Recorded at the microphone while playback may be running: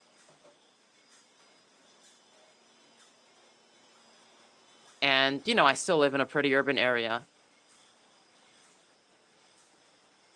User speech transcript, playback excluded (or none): and, you know, I still live in a pretty urban area,